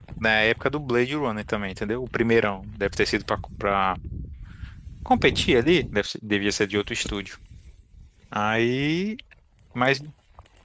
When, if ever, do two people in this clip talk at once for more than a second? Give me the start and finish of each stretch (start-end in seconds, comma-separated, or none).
none